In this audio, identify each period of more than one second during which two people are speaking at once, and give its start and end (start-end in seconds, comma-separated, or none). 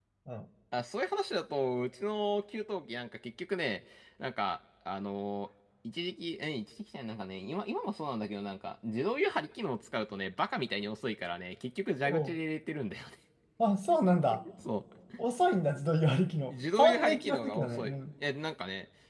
16.5-17.9